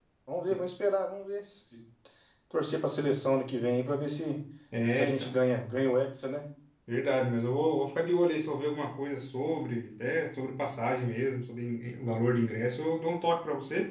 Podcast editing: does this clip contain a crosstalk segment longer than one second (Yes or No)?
No